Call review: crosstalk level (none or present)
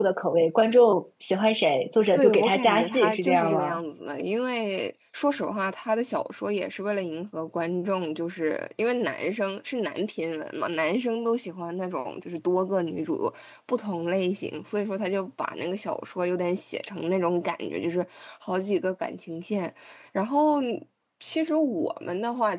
present